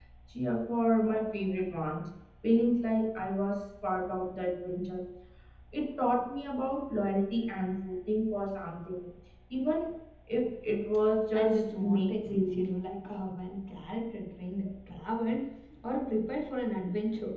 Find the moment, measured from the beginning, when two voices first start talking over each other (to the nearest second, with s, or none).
11 s